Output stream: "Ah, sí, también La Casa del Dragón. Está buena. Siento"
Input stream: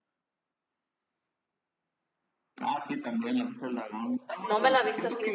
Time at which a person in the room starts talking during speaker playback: 4.4 s

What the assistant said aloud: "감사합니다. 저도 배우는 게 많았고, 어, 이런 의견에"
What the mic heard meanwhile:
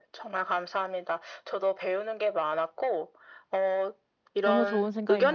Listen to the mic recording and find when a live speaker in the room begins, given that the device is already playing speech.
4.4 s

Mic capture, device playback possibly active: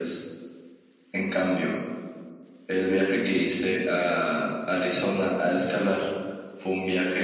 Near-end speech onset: none

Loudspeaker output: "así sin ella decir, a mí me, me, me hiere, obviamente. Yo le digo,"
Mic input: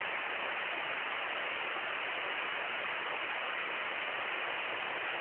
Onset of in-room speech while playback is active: none

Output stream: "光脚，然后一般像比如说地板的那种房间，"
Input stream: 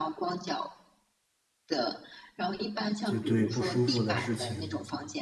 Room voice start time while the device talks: 3.0 s

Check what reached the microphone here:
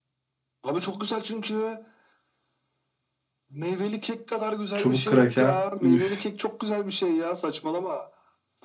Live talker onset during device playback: 4.7 s

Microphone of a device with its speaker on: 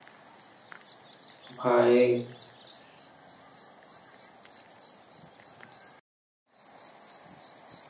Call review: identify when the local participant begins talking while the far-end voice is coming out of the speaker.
1.6 s

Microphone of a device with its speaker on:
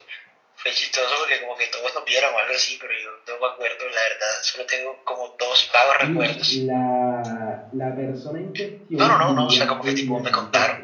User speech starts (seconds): 6.0 s

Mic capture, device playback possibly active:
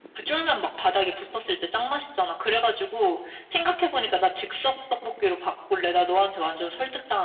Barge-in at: none

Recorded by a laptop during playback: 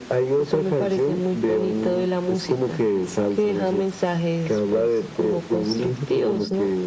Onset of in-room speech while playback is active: none

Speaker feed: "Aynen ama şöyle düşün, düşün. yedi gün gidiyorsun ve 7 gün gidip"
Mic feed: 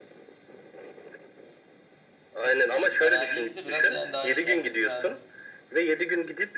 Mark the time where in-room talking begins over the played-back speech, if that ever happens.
2.6 s

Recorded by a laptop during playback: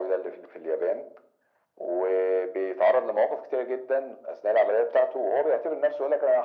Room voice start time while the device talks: none

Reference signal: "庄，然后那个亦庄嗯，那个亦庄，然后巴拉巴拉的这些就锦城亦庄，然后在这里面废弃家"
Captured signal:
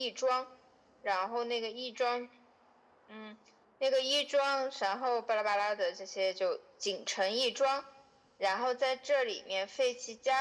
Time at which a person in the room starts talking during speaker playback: none

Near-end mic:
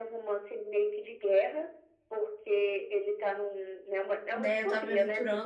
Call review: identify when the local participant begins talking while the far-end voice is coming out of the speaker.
4.3 s

